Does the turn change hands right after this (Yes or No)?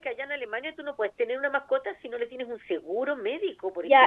Yes